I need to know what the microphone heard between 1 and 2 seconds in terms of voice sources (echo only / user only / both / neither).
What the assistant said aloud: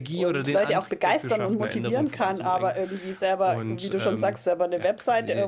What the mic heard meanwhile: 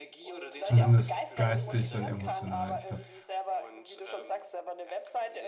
both